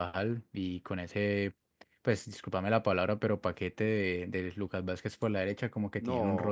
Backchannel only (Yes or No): No